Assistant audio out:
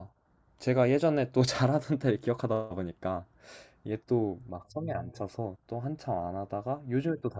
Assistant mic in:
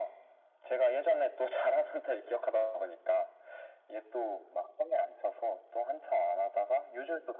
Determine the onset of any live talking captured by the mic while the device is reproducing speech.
none

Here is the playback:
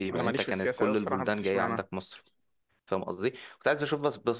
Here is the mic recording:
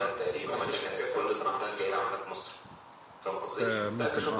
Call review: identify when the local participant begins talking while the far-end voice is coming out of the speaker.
3.4 s

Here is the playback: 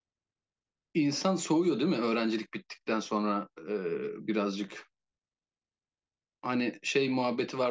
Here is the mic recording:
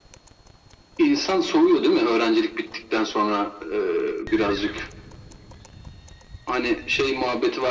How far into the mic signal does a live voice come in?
none

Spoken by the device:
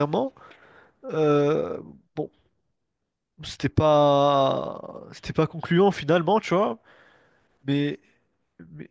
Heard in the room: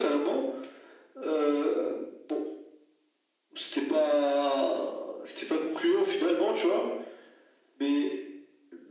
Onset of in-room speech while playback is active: none

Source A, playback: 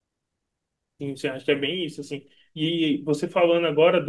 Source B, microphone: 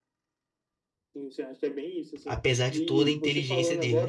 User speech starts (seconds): 2.2 s

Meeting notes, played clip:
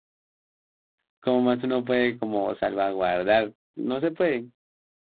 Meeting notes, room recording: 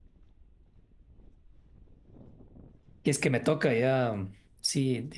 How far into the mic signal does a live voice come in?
3.0 s

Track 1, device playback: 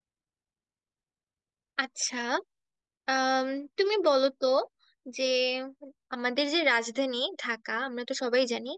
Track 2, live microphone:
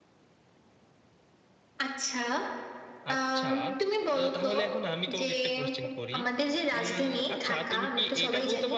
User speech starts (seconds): 3.1 s

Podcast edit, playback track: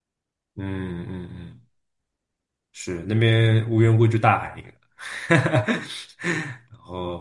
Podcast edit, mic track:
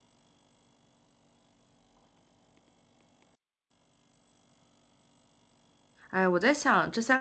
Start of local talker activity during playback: 6.1 s

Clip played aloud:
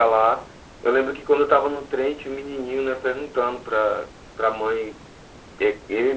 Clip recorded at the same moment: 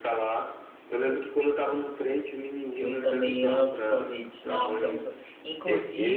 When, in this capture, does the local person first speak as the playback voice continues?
2.8 s

